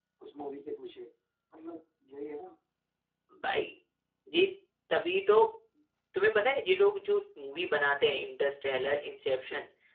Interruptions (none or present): none